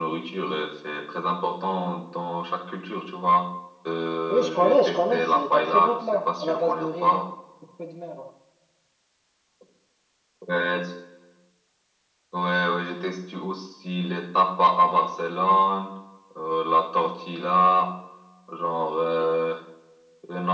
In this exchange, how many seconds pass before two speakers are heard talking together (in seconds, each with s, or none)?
4.3 s